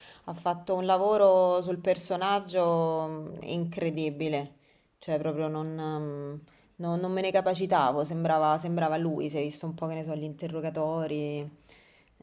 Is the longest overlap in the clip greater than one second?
No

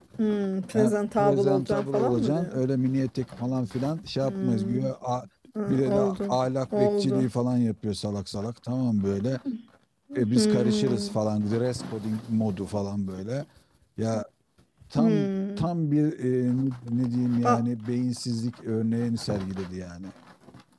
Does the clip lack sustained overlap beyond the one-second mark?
No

